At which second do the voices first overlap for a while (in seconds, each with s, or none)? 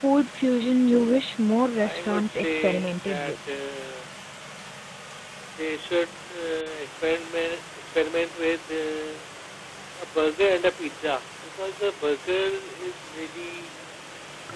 1.8 s